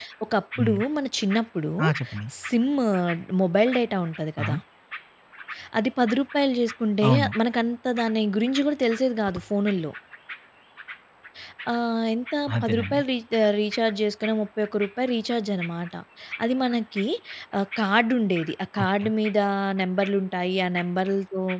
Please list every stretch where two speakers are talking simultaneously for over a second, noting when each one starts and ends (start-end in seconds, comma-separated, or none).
none